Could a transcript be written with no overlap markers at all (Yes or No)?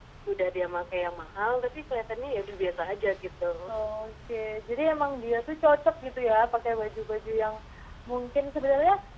Yes